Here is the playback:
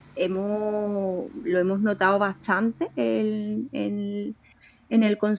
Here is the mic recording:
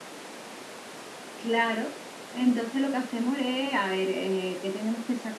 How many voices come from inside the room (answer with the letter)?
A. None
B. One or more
B